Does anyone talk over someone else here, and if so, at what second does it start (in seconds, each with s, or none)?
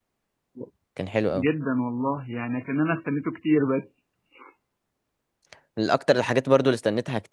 none